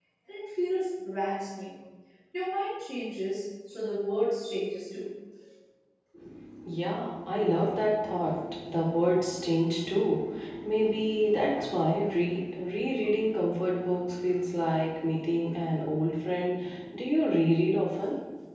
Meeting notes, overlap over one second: none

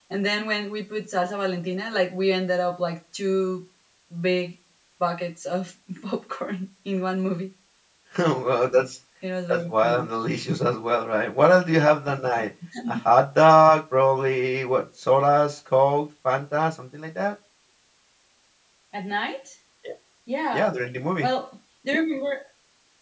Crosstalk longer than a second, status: none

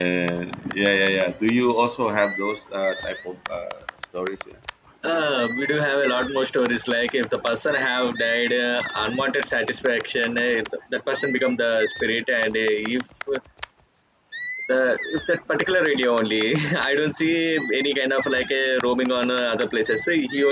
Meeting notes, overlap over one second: none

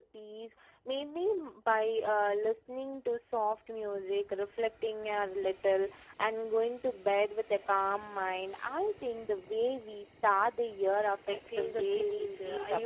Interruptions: present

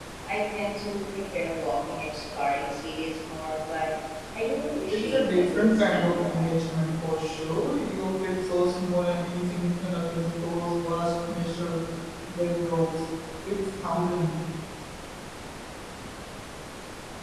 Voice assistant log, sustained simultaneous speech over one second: present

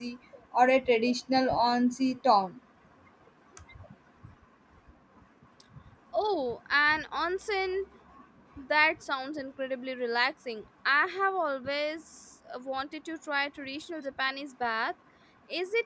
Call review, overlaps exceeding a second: none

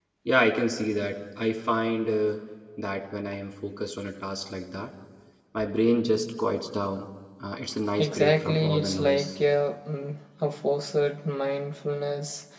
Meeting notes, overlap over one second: present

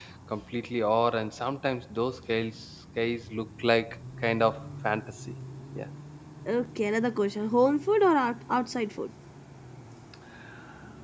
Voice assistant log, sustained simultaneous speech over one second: none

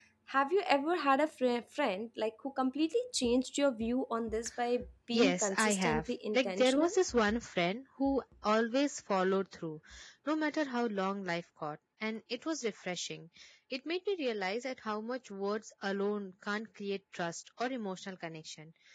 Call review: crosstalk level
present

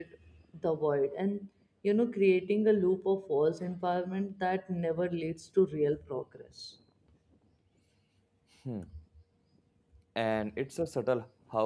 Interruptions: none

